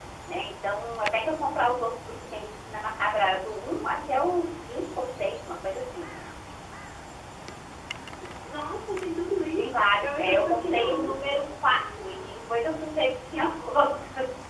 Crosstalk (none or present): present